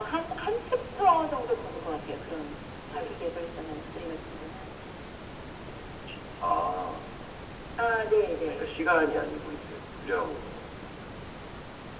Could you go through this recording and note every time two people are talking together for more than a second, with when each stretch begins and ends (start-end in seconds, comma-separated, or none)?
none